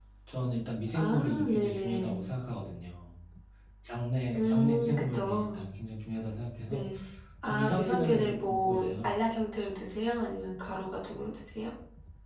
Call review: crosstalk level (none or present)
present